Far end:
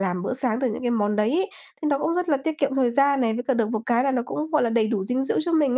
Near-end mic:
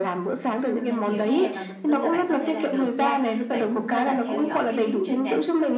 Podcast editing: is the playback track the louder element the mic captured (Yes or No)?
Yes